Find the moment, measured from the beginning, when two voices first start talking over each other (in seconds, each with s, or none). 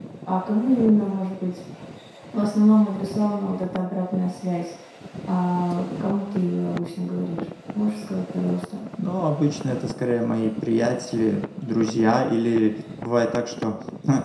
none